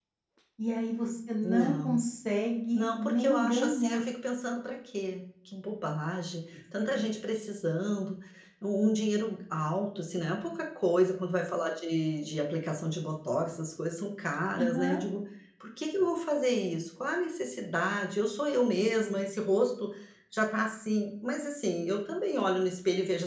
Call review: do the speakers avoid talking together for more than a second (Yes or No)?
No